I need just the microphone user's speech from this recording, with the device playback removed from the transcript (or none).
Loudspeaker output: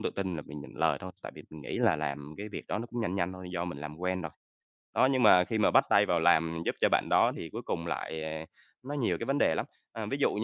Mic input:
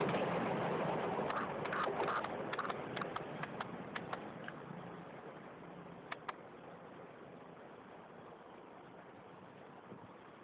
none